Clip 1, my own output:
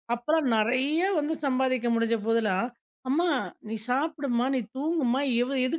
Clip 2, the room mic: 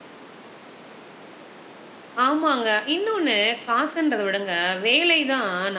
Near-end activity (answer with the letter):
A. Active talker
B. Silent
A